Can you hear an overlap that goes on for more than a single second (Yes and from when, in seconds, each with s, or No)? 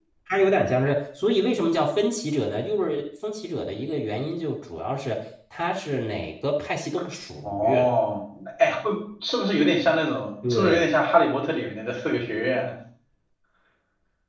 No